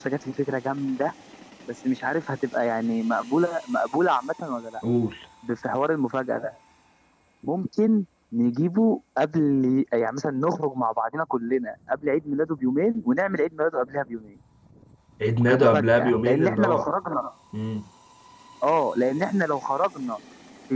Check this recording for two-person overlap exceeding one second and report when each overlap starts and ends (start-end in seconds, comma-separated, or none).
15.5-16.9